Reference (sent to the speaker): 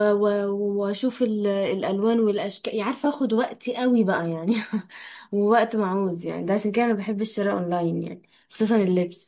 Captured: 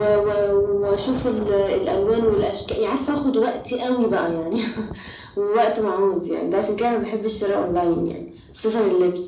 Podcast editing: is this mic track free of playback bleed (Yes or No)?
No